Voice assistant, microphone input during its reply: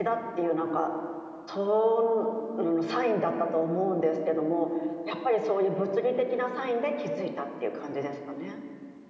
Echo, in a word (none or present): none